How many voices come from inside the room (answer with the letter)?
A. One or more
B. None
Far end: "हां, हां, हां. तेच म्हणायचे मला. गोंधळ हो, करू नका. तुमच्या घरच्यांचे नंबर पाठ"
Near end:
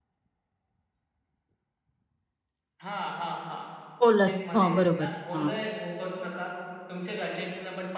A